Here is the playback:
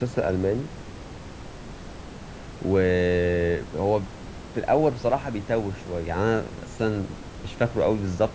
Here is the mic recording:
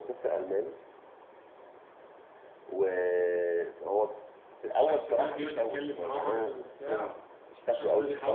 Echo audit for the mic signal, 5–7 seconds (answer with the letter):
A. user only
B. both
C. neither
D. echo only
B